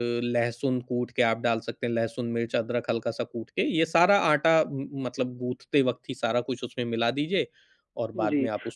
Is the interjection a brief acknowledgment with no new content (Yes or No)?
No